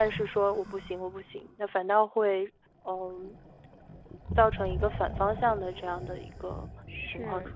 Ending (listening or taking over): taking over